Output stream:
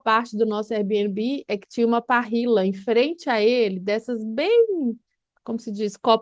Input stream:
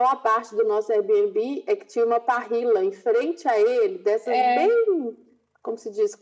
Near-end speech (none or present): present